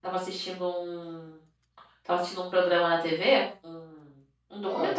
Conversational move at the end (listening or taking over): listening